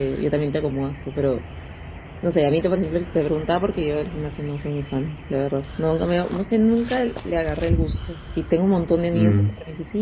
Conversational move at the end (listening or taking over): listening